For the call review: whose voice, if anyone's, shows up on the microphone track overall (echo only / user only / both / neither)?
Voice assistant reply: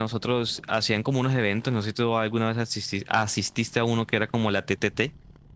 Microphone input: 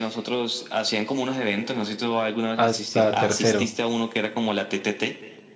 both